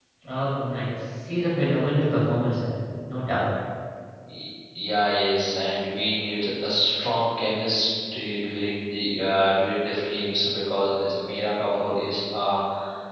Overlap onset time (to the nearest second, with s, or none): none